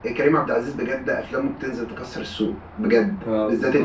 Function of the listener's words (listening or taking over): listening